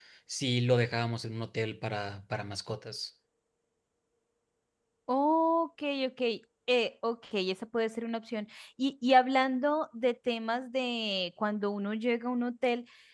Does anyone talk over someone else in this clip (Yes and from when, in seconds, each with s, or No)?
No